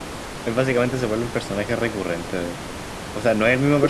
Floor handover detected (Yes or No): No